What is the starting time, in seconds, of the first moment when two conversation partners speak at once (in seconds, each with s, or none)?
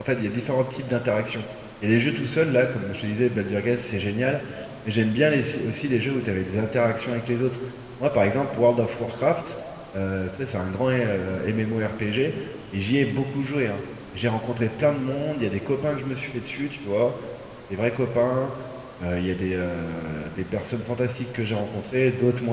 none